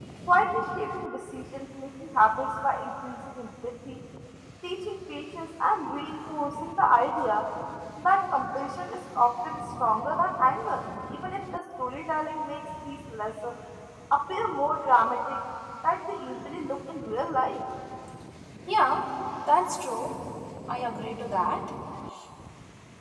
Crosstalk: none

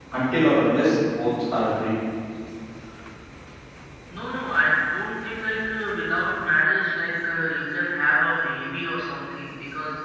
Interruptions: none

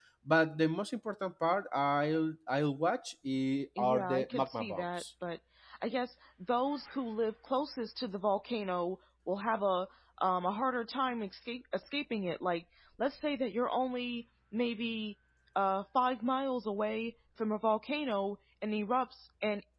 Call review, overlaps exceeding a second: present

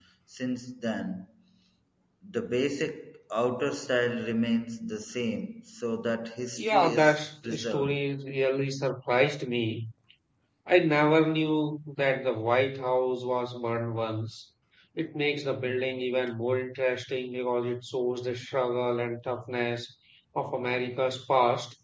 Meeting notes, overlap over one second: present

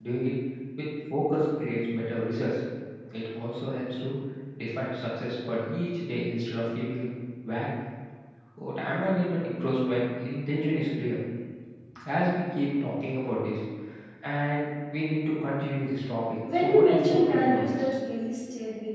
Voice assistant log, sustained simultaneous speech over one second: present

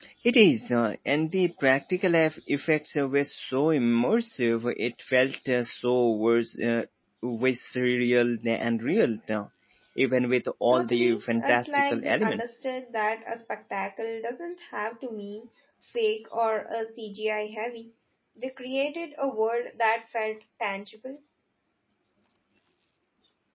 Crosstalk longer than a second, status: present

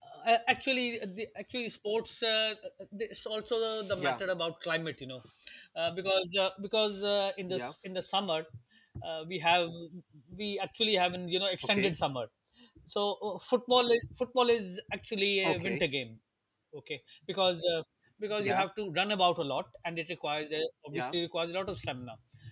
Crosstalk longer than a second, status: none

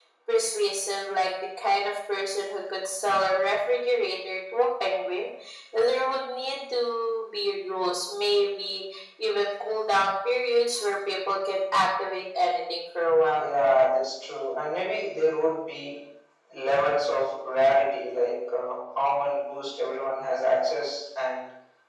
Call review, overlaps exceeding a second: none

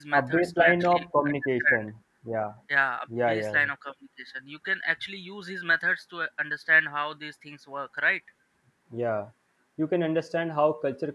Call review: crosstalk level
present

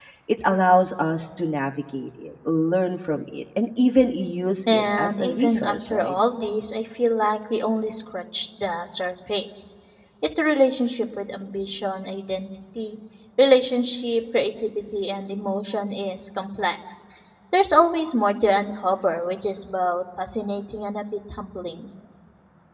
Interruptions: present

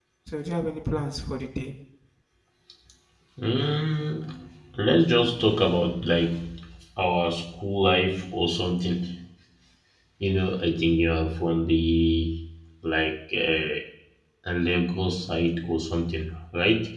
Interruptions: none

